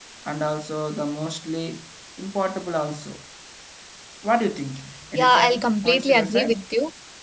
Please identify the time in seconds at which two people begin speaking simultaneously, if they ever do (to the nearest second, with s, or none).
5 s